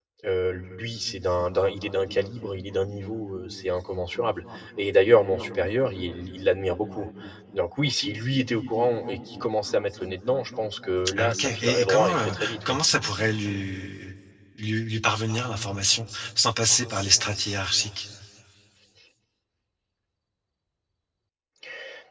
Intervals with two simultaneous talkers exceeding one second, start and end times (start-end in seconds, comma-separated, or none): 11.2-12.8